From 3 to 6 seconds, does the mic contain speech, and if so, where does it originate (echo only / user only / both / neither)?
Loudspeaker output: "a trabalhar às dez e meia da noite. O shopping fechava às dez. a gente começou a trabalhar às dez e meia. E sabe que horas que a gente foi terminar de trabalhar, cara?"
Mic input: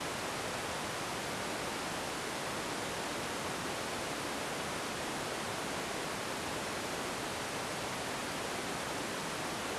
neither